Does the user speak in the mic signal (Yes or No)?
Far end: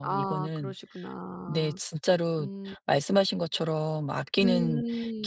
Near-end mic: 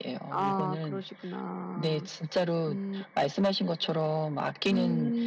No